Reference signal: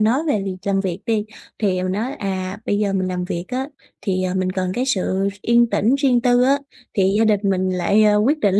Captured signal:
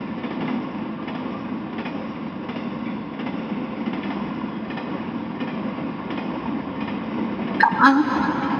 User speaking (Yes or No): Yes